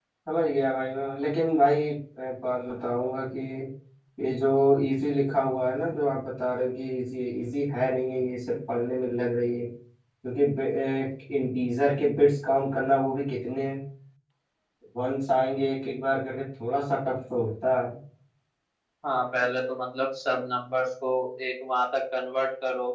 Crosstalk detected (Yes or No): No